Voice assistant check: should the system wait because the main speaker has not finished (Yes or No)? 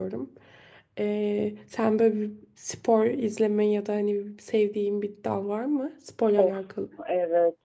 No